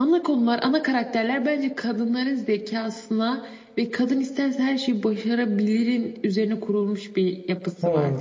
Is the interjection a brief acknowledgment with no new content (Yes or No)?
No